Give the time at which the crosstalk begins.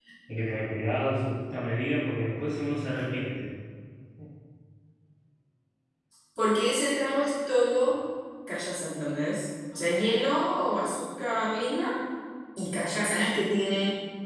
none

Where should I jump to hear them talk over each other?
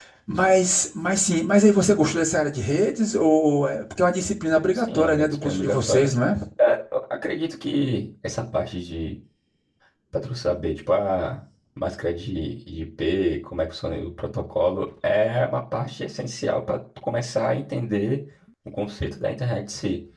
4.7 s

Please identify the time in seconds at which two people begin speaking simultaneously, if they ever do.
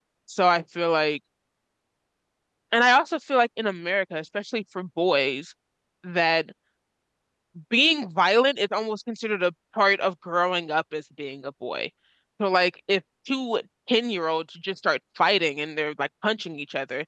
none

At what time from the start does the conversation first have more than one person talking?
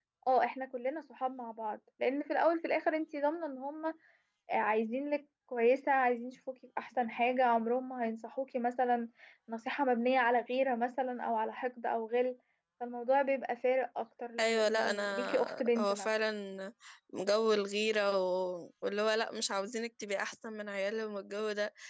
14.4 s

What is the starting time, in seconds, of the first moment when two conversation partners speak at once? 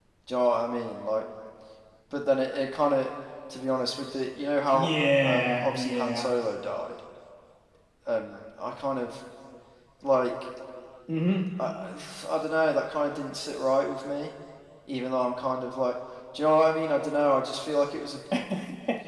4.7 s

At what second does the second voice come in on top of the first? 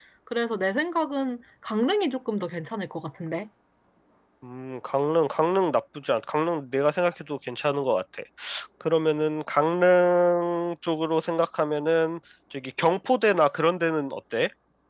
none

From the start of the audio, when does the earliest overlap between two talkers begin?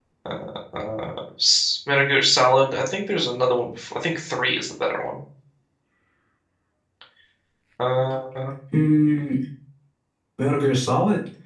none

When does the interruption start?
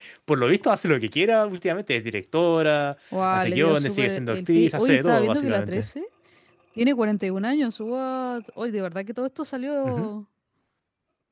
3.1 s

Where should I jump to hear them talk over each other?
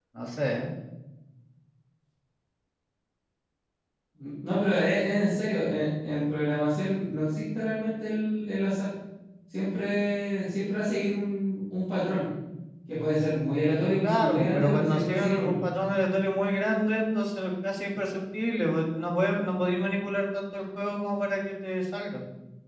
14.0 s

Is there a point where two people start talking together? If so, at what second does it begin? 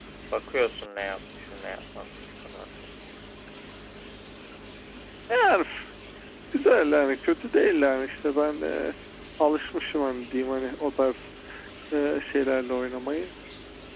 none

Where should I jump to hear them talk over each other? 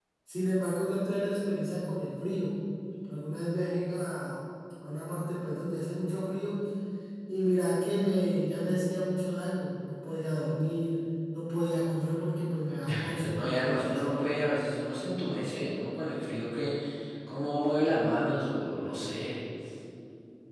12.8 s

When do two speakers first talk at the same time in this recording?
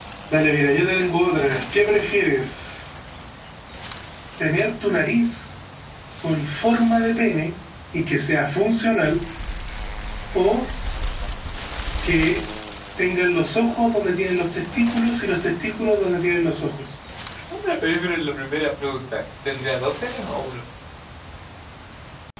none

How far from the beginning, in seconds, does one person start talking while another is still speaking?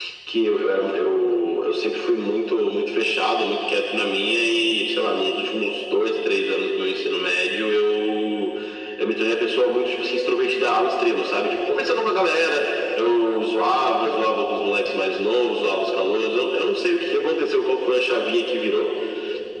none

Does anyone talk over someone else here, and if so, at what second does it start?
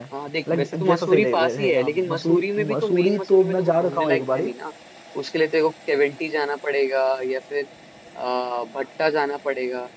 0.5 s

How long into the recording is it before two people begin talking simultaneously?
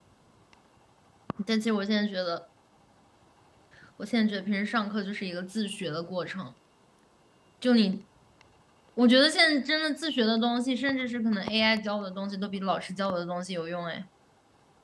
none

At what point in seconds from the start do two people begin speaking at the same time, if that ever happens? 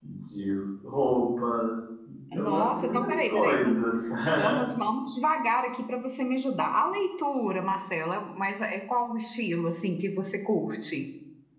2.3 s

